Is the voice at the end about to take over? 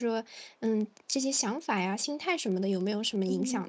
Yes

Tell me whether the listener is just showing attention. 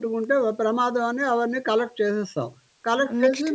Yes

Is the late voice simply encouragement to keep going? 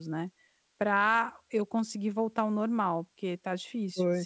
No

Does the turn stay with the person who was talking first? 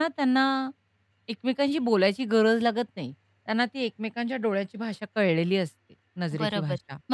No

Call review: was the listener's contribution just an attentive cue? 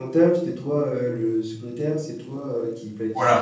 No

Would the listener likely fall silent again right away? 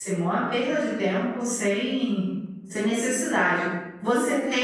Yes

